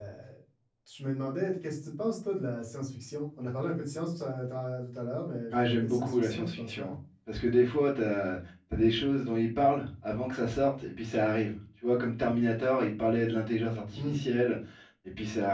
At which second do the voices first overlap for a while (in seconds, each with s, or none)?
5.5 s